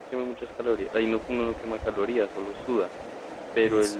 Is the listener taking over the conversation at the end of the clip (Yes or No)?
No